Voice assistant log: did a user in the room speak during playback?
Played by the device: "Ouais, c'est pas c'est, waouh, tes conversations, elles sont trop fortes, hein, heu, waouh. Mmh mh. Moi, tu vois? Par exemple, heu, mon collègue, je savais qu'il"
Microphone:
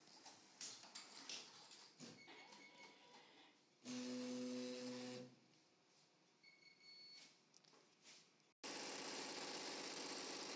No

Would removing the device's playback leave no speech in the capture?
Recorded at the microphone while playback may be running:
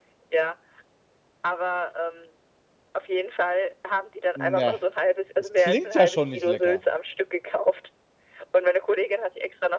No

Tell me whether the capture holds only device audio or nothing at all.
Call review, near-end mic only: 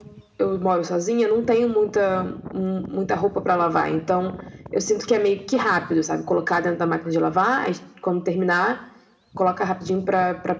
Yes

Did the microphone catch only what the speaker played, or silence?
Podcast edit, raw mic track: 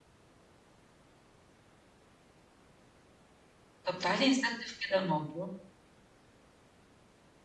No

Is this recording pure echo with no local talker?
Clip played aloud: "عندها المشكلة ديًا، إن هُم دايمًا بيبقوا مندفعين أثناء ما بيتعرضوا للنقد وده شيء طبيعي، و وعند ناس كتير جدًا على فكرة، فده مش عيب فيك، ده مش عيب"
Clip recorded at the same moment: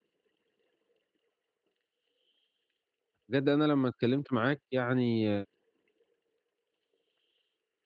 No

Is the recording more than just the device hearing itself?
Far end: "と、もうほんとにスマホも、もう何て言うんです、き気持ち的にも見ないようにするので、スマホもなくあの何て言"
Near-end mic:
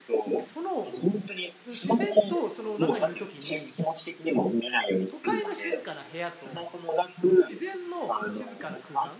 Yes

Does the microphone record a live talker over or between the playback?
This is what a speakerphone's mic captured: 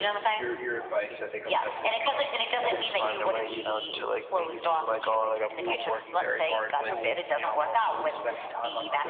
Yes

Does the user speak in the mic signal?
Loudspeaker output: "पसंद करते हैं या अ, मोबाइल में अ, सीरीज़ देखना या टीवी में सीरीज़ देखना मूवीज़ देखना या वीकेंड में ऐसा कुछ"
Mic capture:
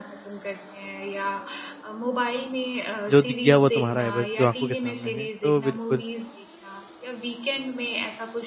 Yes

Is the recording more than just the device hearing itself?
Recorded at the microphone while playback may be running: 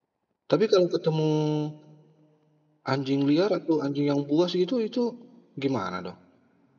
Yes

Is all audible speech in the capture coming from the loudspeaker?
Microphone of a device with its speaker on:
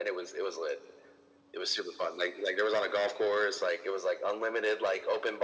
Yes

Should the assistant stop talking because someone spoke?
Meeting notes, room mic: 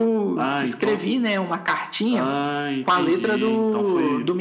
No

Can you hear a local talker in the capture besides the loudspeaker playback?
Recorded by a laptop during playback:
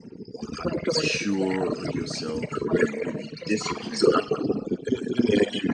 Yes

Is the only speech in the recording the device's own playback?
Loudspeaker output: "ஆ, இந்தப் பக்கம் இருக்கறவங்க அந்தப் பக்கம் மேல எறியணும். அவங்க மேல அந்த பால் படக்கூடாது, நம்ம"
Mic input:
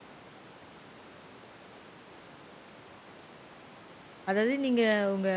No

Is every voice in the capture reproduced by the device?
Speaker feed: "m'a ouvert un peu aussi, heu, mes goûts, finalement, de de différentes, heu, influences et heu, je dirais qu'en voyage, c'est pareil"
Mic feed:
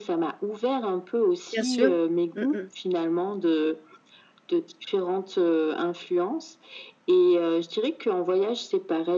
No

